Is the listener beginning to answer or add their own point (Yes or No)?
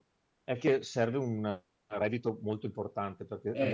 No